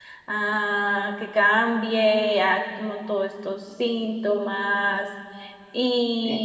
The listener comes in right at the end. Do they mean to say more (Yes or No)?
No